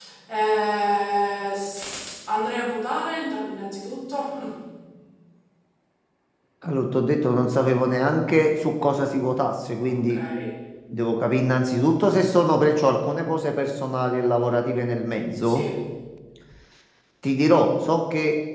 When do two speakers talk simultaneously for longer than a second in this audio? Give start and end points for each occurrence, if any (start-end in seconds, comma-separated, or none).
none